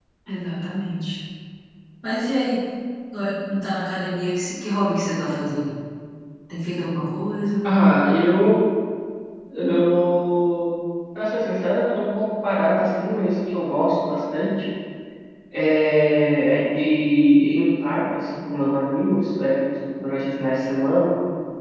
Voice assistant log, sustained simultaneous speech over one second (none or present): none